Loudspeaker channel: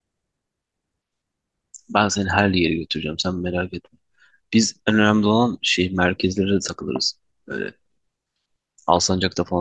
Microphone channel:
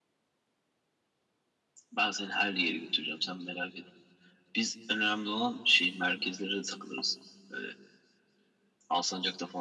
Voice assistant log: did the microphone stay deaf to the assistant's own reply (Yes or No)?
No